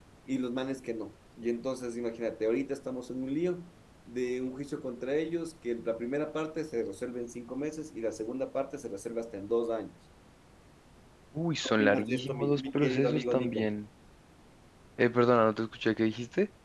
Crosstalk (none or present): present